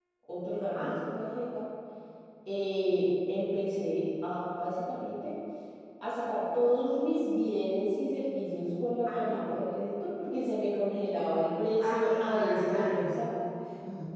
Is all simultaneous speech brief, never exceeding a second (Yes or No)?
No